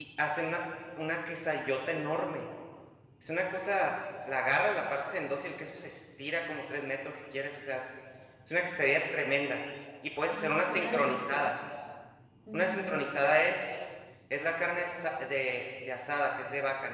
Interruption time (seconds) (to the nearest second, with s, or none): 10 s